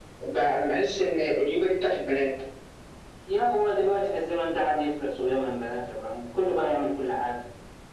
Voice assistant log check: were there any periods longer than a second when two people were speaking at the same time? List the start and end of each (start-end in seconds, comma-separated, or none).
none